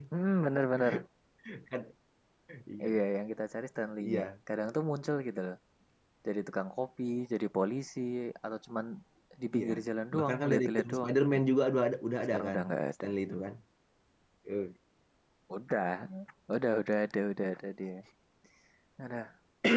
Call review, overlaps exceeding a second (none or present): present